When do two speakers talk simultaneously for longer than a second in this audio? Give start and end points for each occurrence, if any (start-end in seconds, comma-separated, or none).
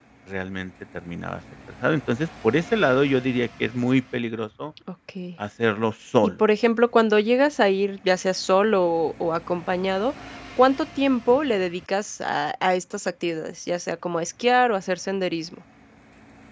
none